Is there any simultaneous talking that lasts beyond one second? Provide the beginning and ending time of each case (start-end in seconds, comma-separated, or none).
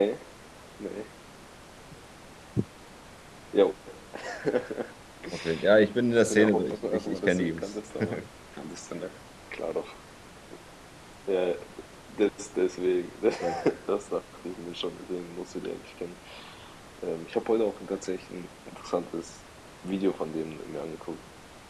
6.3-7.7